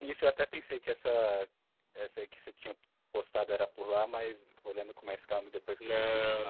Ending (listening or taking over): taking over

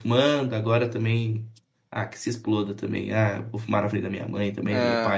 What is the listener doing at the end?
listening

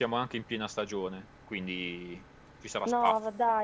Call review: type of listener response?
taking over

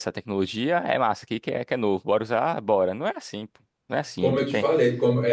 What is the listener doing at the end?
taking over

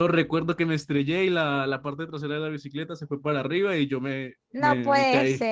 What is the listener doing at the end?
taking over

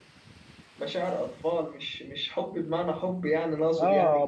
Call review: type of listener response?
taking over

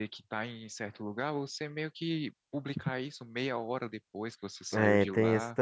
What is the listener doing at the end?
taking over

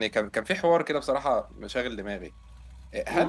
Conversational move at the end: listening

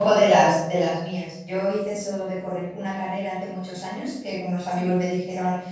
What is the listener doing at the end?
listening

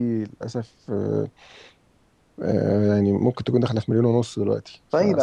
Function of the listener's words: taking over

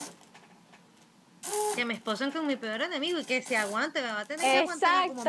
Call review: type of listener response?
taking over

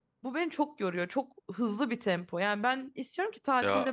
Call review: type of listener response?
listening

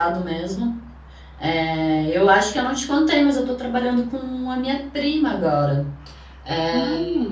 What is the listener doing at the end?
listening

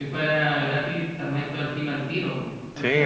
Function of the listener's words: taking over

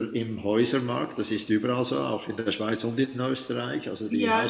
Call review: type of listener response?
taking over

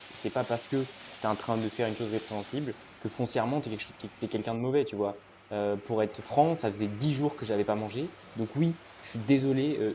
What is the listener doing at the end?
listening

